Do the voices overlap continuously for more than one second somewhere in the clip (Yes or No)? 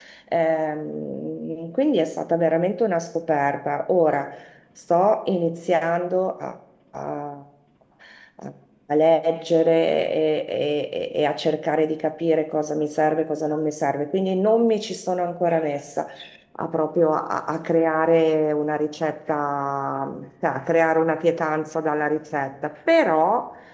No